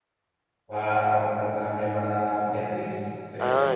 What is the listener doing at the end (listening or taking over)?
taking over